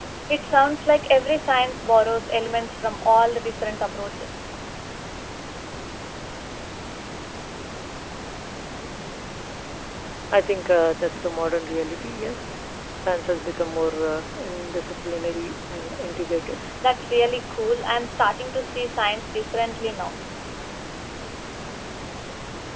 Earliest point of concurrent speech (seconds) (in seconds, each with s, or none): none